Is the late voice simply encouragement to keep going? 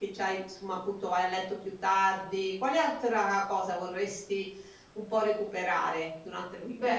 No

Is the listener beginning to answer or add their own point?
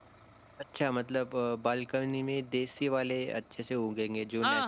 Yes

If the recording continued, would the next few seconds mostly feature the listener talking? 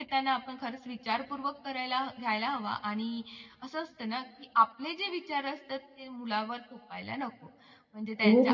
No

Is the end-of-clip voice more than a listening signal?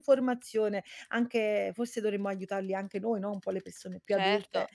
Yes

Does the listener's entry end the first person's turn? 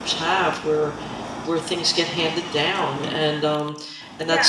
Yes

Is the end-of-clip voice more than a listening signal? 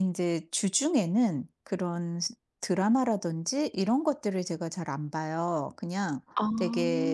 No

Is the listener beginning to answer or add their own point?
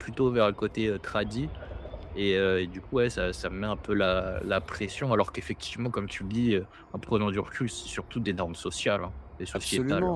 Yes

